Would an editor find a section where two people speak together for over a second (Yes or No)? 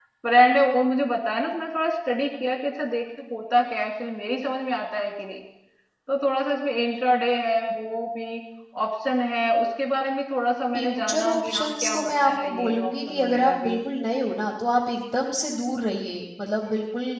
Yes